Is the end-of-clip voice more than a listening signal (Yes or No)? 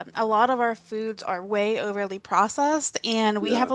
No